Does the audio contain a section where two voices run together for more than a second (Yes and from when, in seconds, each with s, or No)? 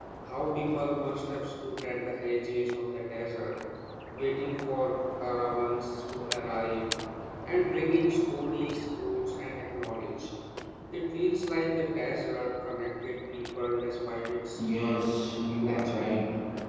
Yes, from 14.5 s